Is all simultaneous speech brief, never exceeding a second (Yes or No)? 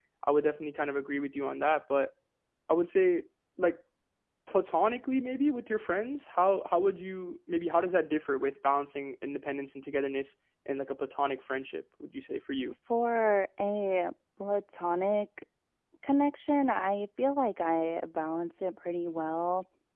Yes